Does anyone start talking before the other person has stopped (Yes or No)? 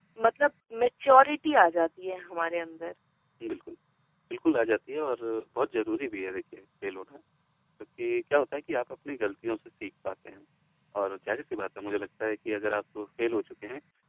No